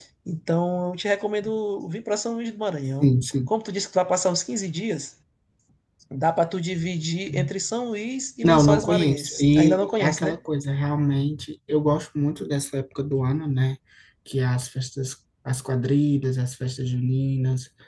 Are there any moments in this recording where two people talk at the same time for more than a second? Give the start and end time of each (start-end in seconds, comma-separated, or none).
8.4-10.4